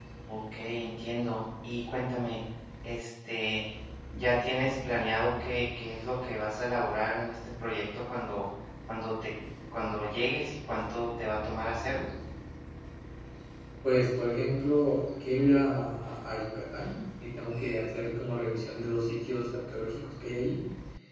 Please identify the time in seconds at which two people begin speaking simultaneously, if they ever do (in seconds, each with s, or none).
none